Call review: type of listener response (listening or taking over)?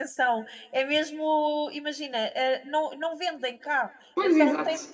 listening